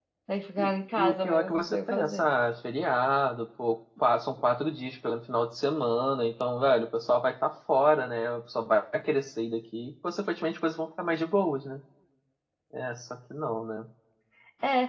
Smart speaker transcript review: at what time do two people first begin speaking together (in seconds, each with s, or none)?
0.6 s